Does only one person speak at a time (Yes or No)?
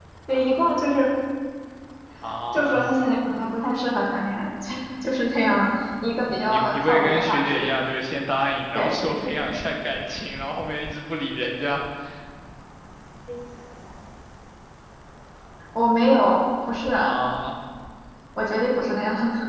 No